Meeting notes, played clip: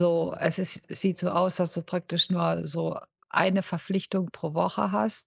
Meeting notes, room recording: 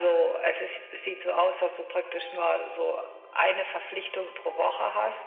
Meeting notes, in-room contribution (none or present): none